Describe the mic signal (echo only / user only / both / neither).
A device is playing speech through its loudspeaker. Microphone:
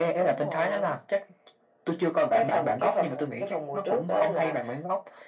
echo only